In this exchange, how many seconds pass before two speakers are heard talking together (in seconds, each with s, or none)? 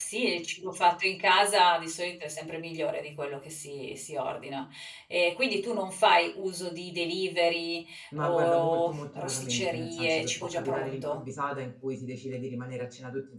8.2 s